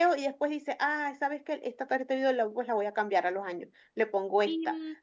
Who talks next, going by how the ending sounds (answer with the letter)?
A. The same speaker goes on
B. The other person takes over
A